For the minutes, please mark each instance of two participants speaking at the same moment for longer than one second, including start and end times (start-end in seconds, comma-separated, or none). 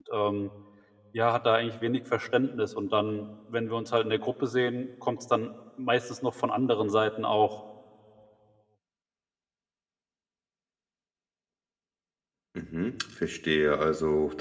none